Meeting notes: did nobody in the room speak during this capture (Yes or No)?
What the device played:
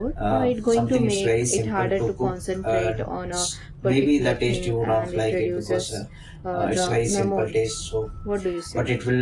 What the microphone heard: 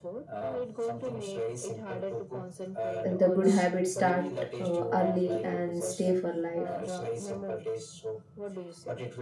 No